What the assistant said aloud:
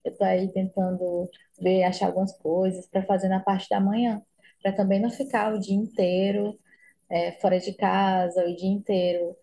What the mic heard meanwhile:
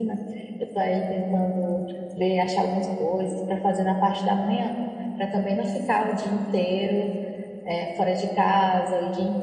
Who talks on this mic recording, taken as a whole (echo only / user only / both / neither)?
echo only